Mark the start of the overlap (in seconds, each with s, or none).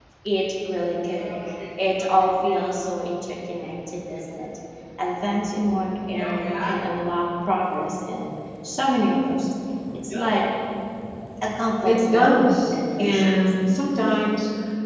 11.8 s